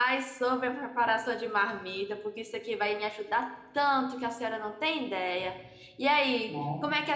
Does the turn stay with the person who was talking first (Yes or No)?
Yes